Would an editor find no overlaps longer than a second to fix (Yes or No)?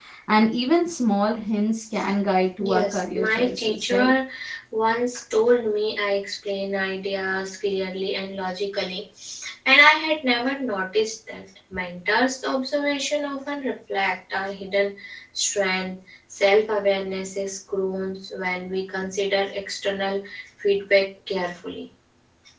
No